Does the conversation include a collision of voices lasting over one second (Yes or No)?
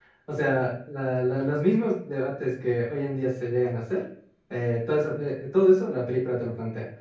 No